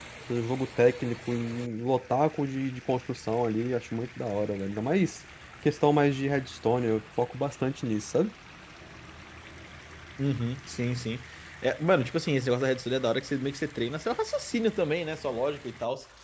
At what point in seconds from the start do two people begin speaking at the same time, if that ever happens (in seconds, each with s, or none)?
none